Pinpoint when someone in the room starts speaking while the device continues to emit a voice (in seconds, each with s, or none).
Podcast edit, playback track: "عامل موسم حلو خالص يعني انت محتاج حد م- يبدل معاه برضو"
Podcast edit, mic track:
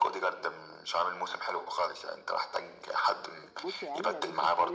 3.6 s